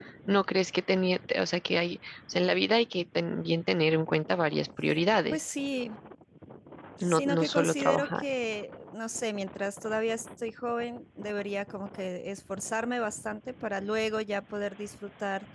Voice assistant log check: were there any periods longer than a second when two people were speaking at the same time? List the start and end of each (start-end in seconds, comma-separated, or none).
7.0-8.2